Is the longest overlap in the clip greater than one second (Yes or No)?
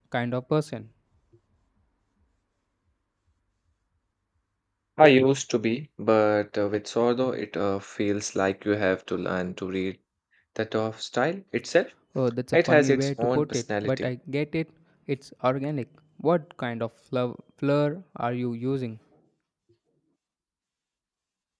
Yes